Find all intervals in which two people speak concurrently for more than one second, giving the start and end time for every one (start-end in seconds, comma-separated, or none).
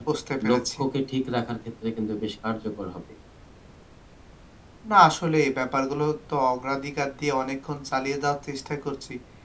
none